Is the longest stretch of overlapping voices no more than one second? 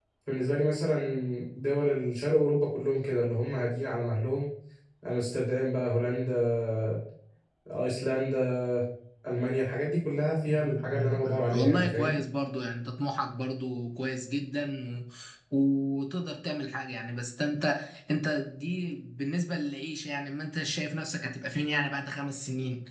No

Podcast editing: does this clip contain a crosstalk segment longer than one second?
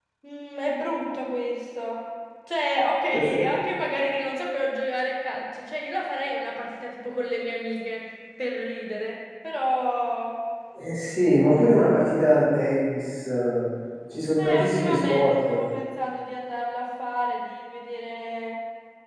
Yes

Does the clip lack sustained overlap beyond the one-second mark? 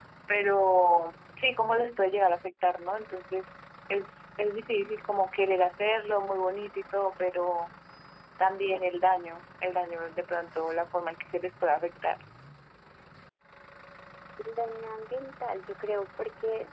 Yes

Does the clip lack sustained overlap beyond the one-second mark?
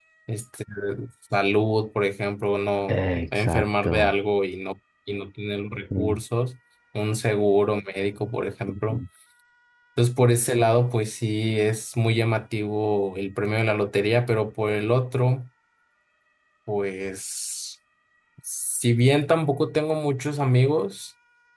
No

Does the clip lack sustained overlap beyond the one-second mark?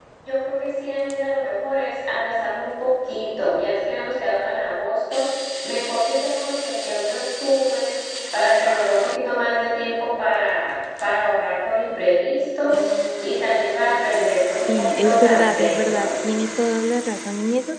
No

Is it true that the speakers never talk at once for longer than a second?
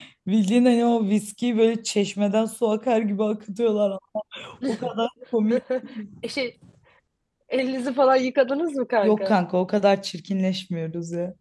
Yes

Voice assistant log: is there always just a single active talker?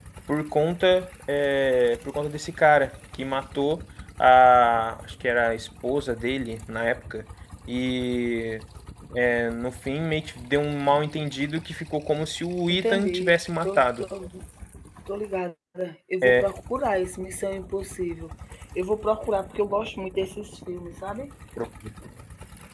No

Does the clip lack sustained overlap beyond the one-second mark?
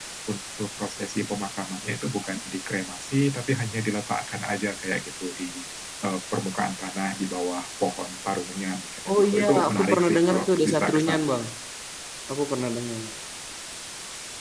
No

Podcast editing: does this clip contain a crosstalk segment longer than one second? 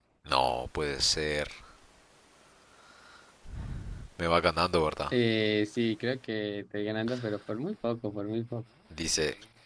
No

